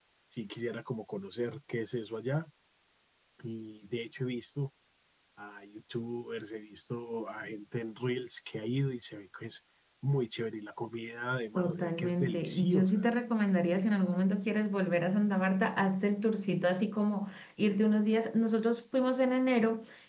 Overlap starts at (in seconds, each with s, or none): 11.6 s